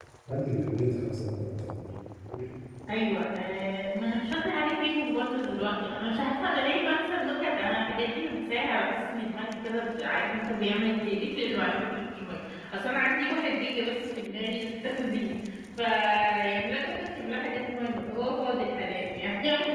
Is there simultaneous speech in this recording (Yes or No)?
No